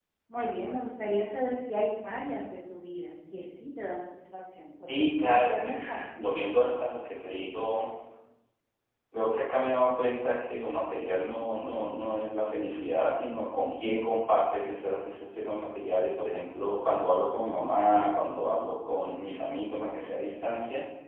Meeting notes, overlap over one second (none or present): present